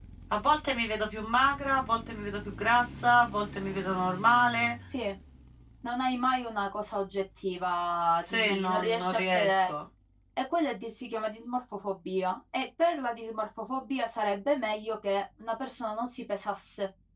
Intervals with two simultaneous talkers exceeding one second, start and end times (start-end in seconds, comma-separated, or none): 8.3-9.7